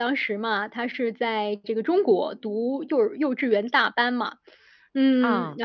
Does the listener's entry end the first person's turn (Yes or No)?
No